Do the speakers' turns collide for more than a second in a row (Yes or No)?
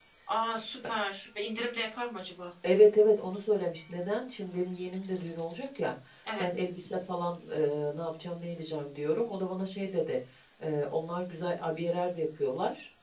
No